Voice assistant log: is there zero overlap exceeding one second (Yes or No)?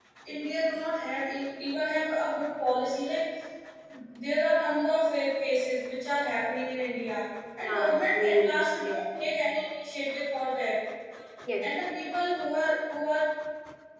No